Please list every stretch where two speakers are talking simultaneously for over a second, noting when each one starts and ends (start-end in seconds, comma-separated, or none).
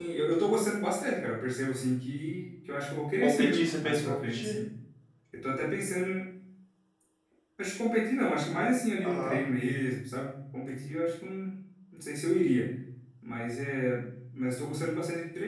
3.2-4.6